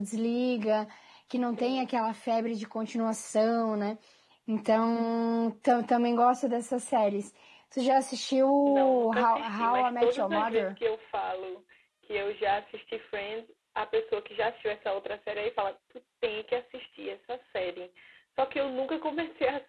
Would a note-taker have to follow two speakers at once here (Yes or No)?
Yes